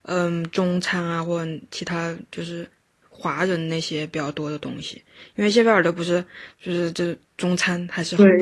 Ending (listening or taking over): taking over